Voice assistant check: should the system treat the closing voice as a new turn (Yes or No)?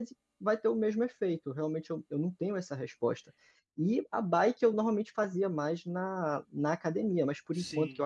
No